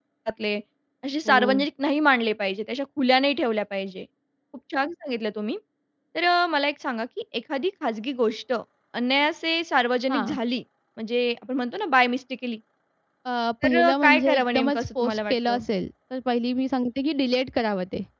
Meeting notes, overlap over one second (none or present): present